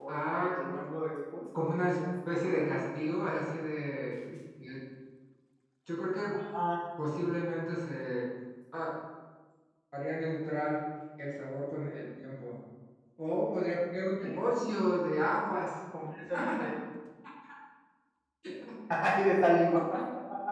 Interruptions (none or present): present